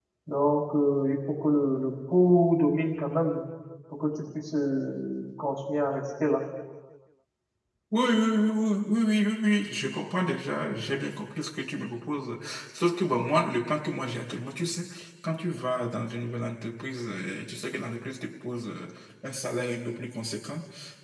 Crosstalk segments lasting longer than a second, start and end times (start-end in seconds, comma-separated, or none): none